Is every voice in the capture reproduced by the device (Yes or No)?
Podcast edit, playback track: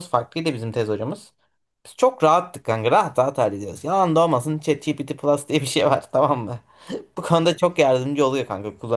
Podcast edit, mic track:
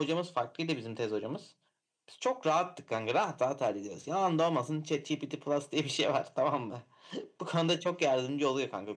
Yes